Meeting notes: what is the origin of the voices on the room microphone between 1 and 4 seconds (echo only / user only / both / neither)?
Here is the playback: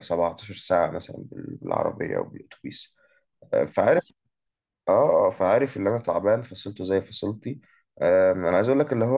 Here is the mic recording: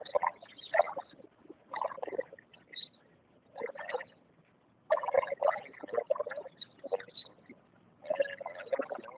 echo only